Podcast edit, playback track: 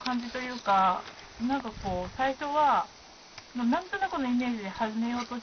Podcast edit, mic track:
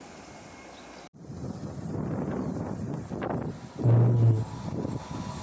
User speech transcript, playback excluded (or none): うん。